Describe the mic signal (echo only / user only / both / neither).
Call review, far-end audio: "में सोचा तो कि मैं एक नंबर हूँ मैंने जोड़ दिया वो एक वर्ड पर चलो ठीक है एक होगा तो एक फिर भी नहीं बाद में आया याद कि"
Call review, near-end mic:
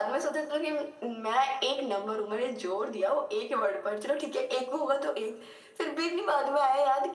echo only